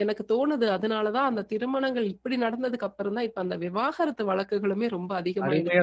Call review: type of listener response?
taking over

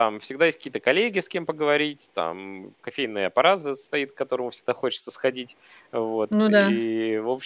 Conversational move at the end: listening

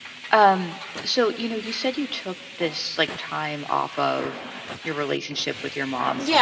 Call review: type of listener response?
taking over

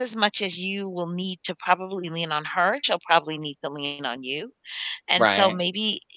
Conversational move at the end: listening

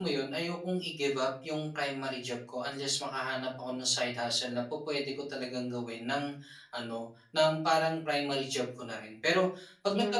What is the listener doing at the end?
listening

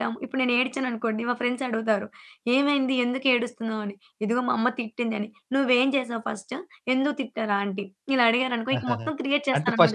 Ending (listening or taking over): taking over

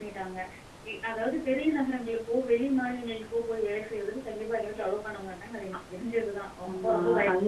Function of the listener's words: taking over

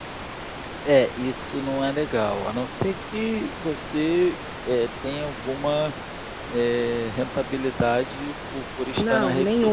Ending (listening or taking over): taking over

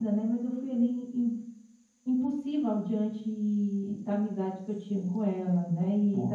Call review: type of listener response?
taking over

